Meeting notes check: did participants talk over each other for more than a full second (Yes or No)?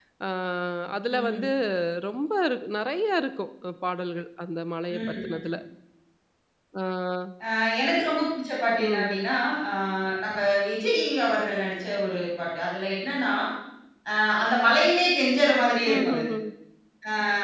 No